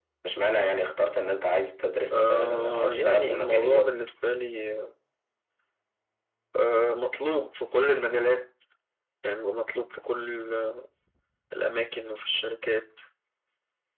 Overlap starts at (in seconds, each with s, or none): 2.1 s